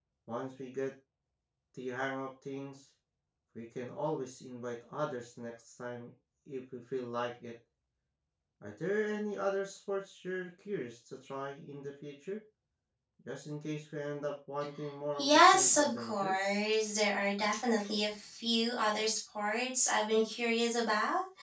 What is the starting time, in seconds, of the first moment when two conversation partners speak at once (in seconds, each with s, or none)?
15.2 s